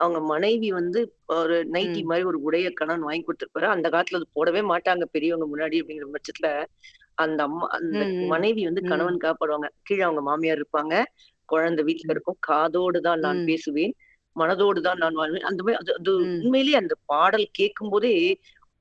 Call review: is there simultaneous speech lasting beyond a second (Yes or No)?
No